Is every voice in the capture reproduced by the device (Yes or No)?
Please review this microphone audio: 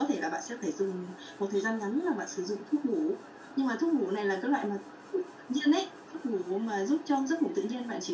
Yes